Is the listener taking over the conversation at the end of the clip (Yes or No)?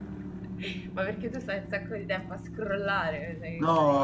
Yes